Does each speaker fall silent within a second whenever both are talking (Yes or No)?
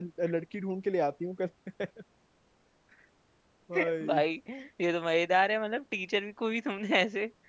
Yes